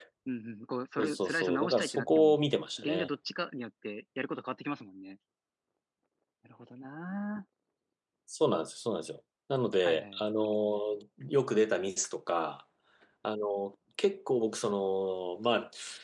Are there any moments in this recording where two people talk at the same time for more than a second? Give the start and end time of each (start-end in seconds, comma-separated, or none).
1.0-2.4